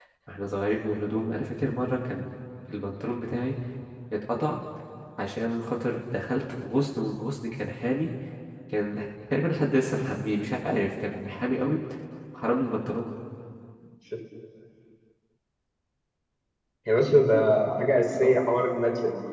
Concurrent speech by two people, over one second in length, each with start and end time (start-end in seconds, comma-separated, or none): none